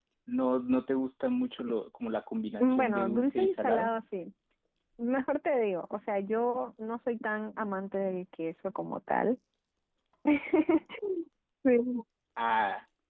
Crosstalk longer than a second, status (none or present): present